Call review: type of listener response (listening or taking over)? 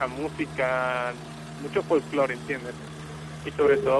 listening